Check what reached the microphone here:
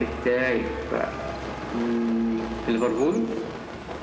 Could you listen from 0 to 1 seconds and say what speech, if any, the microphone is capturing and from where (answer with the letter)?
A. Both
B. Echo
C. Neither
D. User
B